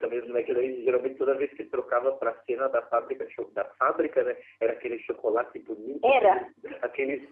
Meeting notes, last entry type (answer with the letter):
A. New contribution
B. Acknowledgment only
B